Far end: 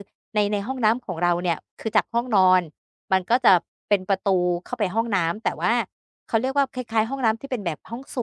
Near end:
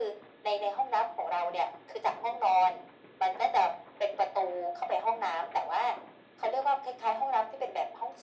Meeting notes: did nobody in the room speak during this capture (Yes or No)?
Yes